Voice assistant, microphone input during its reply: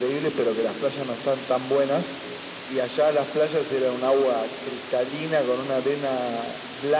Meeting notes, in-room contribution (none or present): none